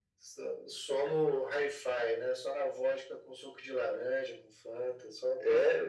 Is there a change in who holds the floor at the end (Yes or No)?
Yes